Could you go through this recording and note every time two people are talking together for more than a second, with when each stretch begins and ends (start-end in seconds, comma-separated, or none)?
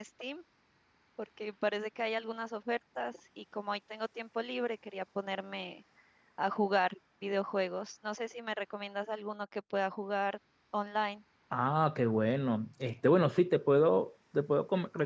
none